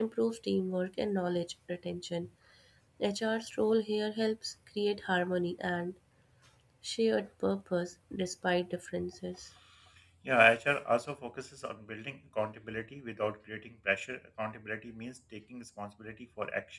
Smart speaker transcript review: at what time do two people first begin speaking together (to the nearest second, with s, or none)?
none